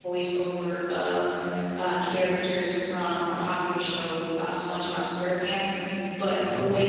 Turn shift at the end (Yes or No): No